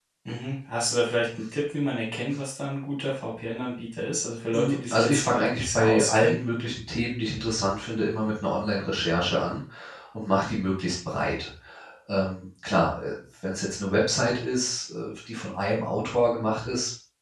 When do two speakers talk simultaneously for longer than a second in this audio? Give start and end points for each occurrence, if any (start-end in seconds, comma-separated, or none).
4.5-6.4